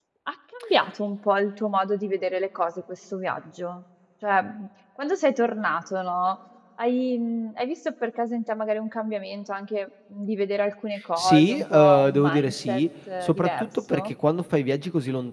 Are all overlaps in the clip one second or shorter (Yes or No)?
No